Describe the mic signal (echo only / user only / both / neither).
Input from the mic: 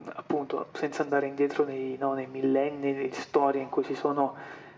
echo only